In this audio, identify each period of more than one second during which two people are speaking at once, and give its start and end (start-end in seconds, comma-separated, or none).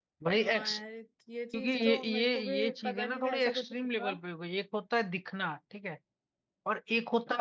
1.5-4.1